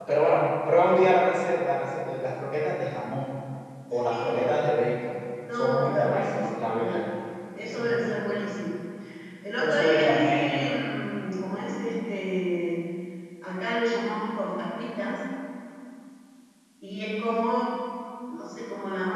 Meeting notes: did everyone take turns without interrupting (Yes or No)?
No